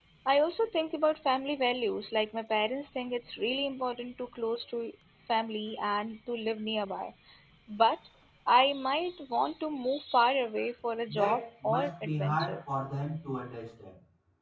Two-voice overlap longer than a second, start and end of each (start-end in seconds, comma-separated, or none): 11.1-12.6